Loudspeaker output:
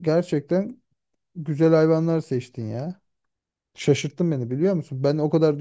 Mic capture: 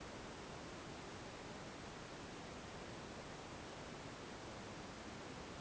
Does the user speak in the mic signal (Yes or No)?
No